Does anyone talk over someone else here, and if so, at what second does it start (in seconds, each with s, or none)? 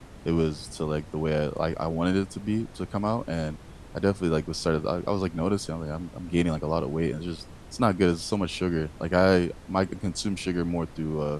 none